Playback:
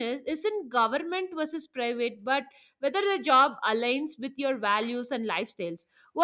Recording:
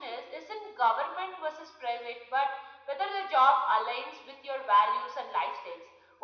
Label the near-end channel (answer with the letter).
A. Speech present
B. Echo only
B